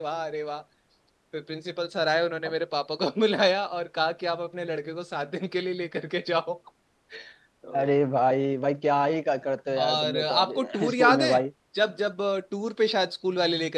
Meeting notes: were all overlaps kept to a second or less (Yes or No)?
No